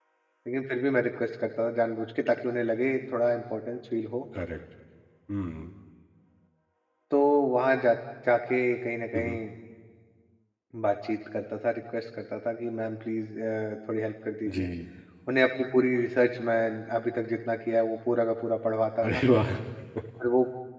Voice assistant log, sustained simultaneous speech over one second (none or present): none